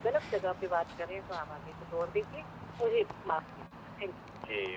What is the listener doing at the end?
taking over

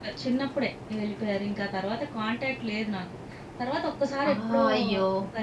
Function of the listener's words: listening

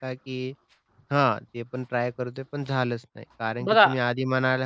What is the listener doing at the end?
listening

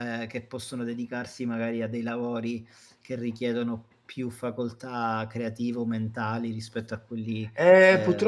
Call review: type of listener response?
taking over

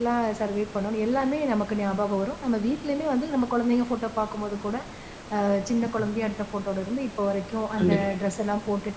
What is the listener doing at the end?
listening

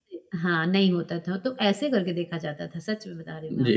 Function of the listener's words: taking over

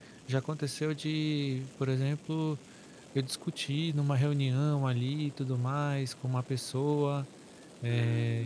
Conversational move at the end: listening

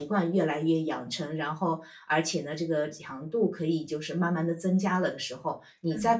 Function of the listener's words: taking over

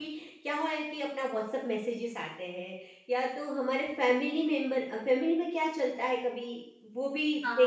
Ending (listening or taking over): taking over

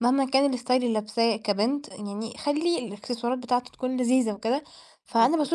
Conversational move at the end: listening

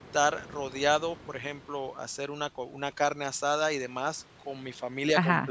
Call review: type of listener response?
listening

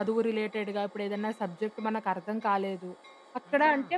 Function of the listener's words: listening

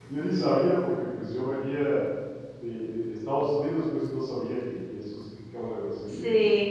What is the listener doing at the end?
taking over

